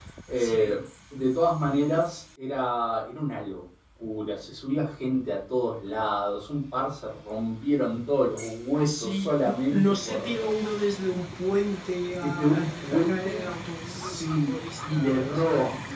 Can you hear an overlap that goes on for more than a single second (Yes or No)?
Yes